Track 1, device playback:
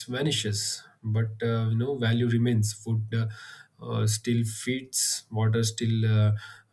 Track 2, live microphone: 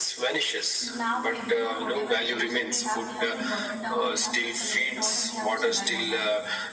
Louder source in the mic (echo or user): echo